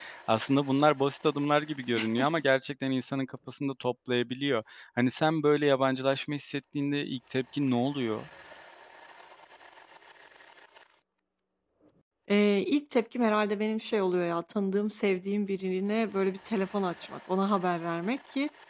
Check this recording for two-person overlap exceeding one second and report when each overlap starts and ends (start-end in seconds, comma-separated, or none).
none